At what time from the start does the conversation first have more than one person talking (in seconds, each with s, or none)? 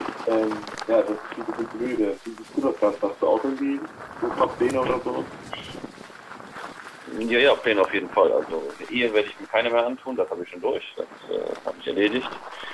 none